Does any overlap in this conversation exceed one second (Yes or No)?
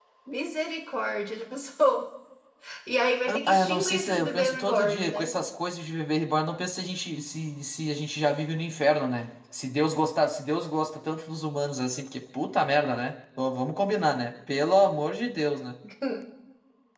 Yes